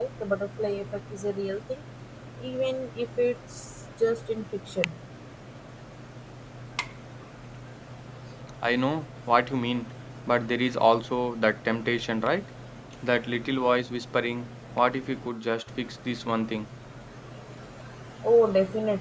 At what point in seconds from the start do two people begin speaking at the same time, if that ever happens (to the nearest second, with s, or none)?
none